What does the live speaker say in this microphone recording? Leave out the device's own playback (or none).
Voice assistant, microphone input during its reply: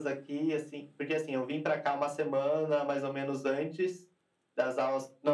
none